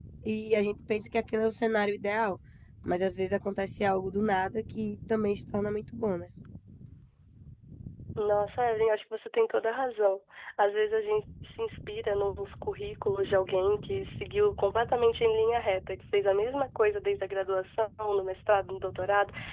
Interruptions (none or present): none